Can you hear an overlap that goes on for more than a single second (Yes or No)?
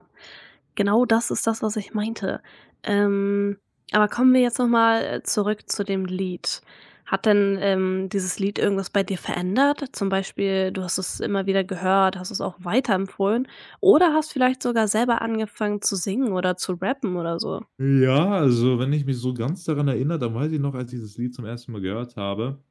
No